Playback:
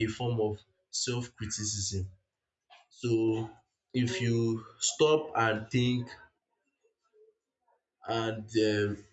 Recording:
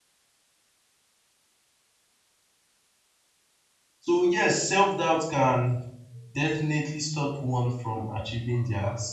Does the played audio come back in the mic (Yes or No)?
No